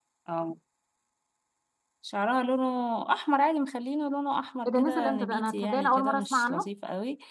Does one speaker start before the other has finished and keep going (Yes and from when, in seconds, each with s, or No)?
Yes, from 4.6 s